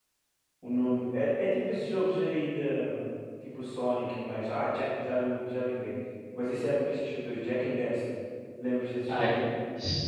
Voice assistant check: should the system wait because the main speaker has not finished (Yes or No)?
No